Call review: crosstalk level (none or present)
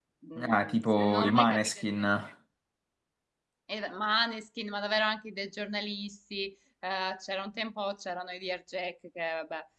present